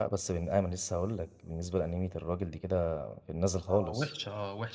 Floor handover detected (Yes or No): Yes